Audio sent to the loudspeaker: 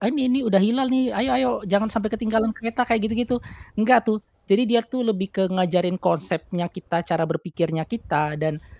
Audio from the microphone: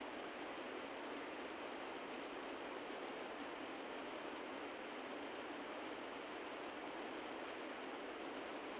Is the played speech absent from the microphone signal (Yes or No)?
Yes